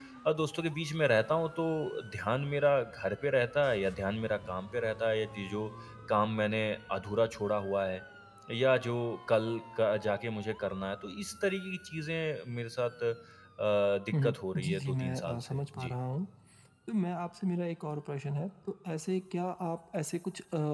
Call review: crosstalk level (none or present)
present